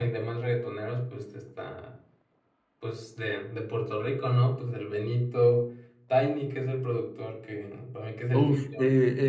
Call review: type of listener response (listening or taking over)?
taking over